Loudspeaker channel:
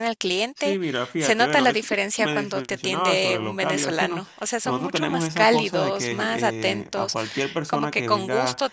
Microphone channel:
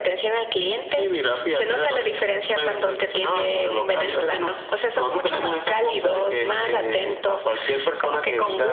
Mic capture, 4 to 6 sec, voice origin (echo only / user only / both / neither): echo only